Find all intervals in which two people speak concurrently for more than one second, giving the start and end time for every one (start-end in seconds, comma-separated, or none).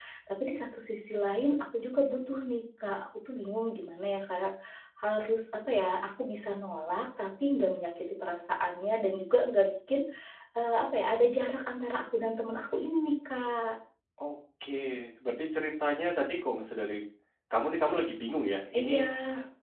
none